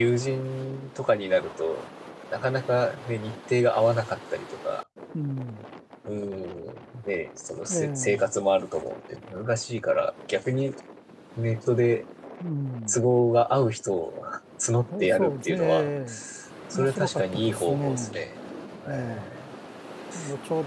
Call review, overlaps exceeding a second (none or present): present